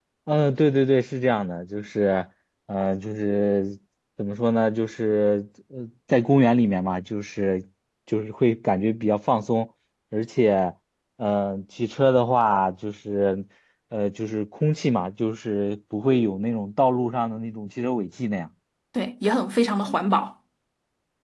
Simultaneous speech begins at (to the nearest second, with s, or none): none